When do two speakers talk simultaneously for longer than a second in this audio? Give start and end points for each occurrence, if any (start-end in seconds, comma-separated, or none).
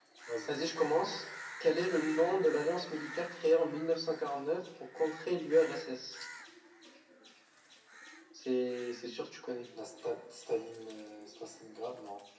none